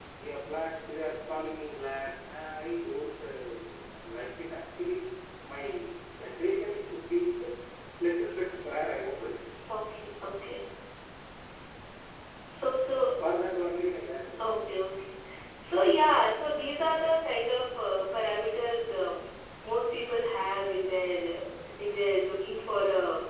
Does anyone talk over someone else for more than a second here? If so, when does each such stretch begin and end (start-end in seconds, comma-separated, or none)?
none